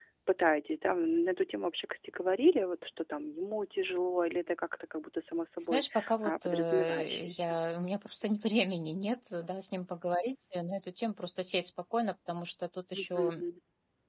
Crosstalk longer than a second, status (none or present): present